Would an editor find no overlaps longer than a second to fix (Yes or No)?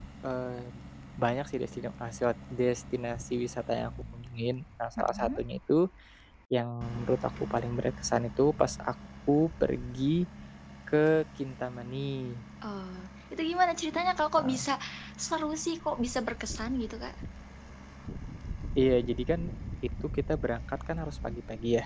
Yes